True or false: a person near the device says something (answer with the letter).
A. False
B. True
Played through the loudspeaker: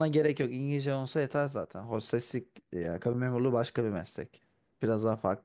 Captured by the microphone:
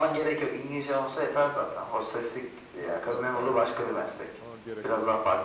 B